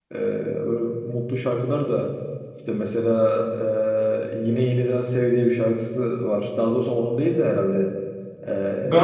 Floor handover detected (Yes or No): Yes